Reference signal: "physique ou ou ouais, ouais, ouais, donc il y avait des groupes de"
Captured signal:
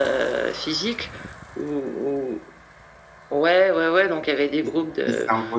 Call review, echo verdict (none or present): present